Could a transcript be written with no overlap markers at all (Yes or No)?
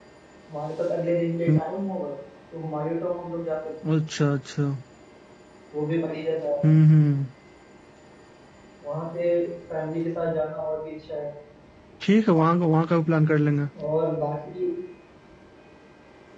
Yes